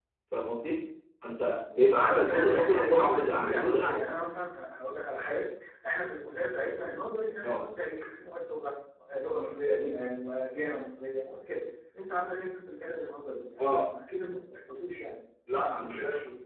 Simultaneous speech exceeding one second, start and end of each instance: 2.0-3.9

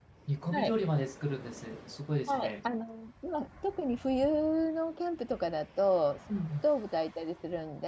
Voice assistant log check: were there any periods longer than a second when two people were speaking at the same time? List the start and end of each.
none

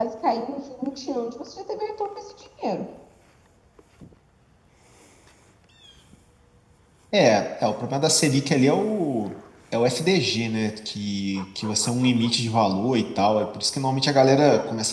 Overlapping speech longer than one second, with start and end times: none

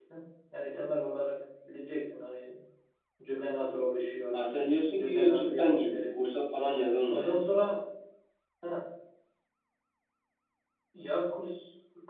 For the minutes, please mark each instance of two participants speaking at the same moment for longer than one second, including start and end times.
5.0-6.2

